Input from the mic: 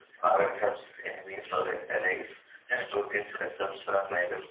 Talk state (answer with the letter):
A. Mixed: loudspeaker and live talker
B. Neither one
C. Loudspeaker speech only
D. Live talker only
C